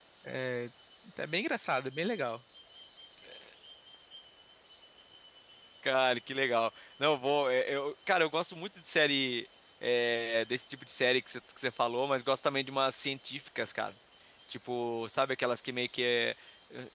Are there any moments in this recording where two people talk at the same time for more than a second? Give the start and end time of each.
none

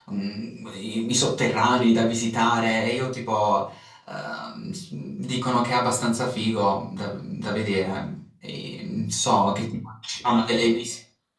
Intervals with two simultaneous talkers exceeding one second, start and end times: none

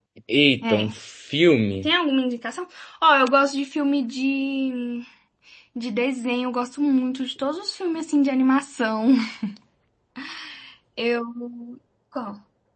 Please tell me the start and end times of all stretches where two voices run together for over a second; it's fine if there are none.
none

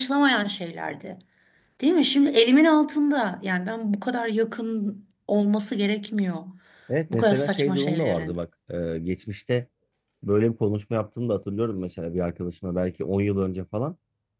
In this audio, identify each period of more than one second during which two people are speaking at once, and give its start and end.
7.1-8.3

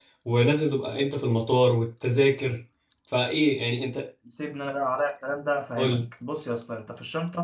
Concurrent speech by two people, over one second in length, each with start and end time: none

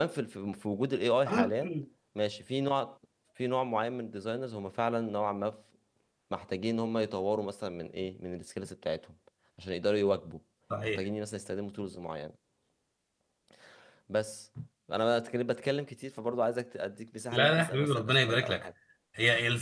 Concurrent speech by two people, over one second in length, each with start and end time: 17.3-18.7

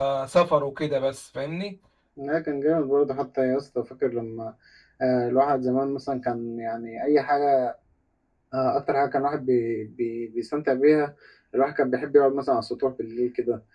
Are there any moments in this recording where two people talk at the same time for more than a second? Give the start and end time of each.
none

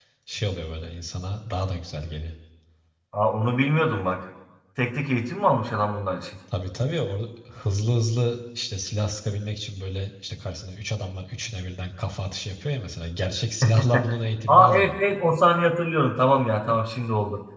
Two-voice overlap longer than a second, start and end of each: none

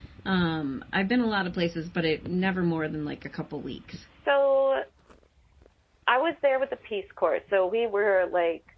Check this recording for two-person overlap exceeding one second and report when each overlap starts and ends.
none

